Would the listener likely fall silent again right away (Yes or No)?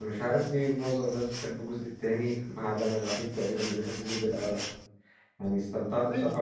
No